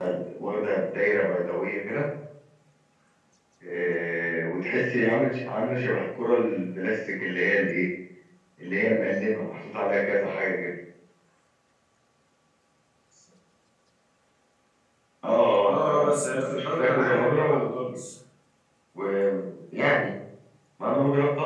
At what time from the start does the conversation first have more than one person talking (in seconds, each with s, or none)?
15.7 s